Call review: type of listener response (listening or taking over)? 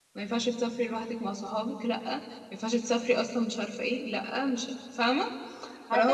taking over